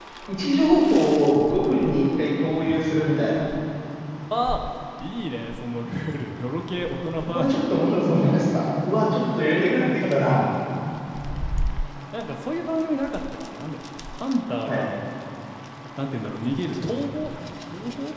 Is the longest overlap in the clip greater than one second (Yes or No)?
No